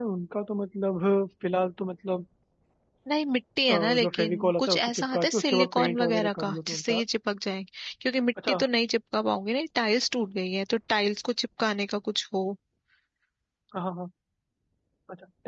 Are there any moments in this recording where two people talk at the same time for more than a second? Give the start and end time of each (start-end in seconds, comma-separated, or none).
3.7-7.0